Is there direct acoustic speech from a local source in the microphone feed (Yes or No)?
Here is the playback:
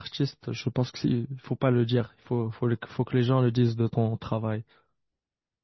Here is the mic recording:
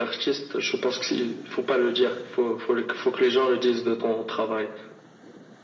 No